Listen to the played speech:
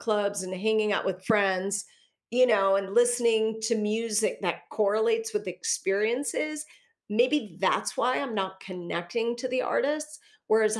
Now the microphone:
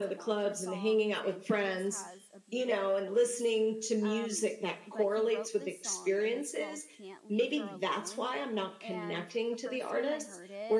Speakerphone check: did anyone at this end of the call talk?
Yes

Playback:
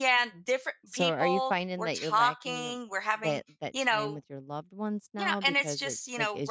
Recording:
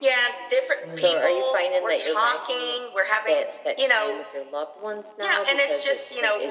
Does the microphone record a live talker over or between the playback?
Yes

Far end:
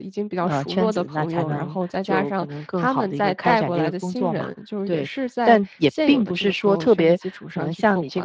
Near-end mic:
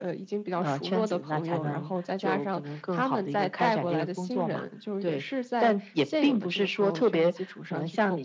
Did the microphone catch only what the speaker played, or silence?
Yes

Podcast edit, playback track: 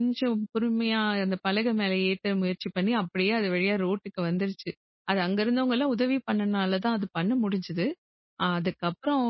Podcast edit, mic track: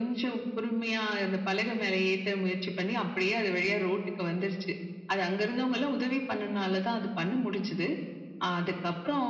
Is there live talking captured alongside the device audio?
No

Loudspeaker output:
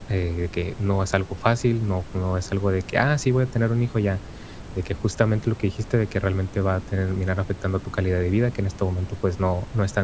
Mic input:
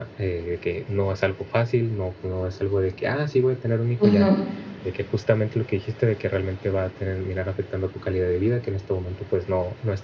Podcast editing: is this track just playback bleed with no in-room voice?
No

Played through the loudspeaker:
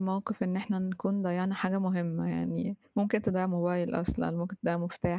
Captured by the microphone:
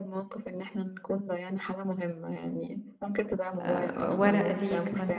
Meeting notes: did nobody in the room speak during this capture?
No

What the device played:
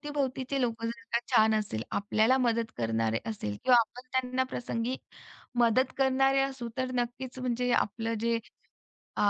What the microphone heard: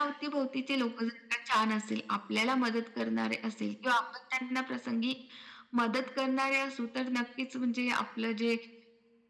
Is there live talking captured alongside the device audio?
No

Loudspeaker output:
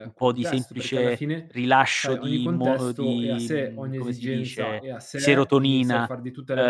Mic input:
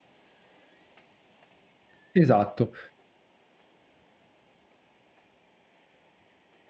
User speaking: Yes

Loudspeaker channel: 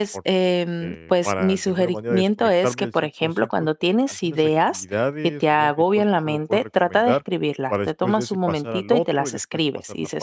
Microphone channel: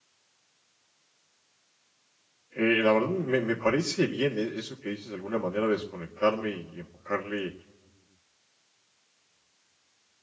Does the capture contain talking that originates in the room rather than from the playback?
Yes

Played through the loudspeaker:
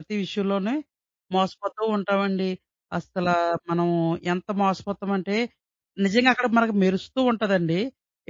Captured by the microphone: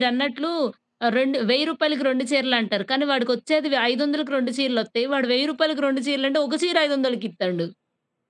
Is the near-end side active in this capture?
Yes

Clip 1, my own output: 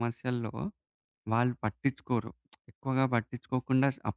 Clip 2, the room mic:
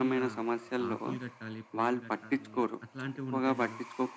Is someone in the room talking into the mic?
Yes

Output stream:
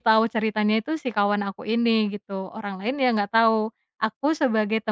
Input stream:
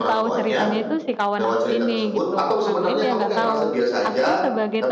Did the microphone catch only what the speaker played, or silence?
No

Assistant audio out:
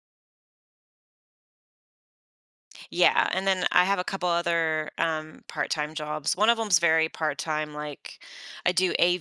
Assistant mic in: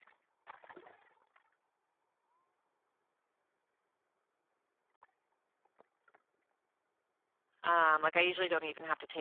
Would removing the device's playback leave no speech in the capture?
No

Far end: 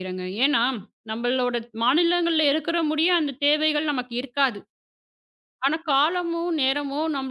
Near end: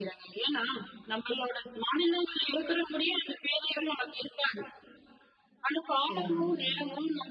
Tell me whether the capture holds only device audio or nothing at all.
No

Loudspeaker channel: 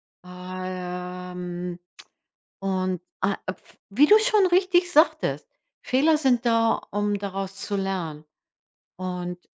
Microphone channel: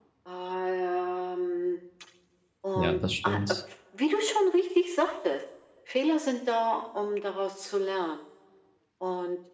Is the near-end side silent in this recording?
No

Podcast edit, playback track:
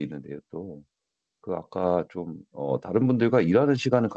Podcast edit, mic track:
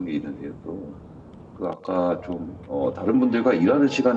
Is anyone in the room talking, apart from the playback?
No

